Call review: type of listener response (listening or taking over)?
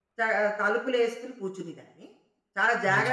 listening